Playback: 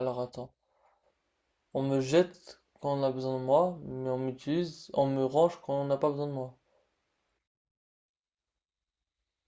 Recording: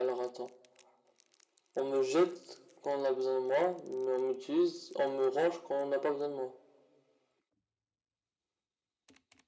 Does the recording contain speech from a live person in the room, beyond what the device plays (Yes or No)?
No